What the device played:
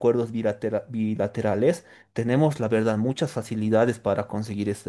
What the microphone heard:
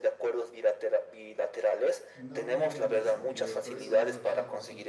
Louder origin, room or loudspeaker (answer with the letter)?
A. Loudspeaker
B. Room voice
A